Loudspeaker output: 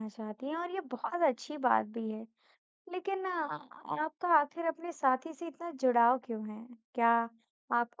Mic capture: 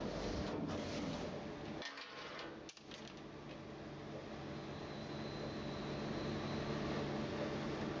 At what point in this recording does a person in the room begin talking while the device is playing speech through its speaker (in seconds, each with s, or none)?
none